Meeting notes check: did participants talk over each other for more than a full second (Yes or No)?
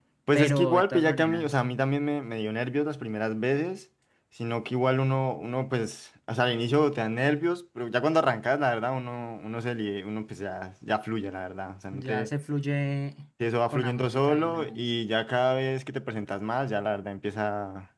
Yes